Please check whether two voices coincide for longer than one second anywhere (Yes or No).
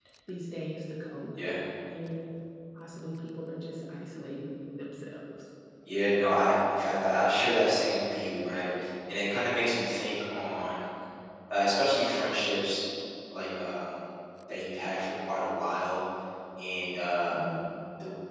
No